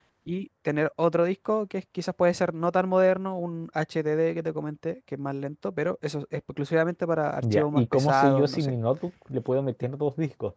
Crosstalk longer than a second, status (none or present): present